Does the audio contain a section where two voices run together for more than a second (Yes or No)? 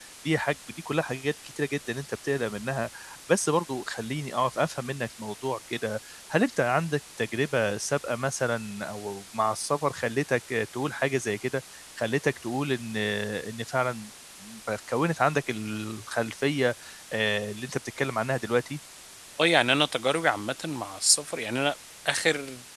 No